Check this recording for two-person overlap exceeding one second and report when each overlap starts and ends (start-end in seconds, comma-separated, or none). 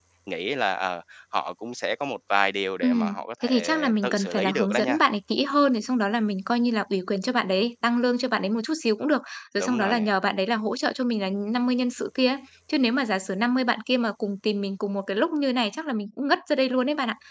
2.8-5.0